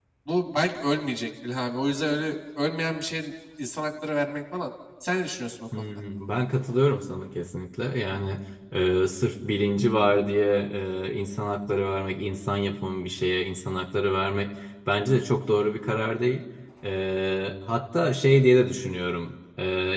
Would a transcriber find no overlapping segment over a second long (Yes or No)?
Yes